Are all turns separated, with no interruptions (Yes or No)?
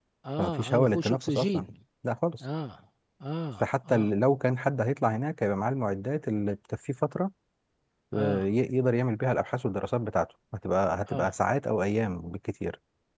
No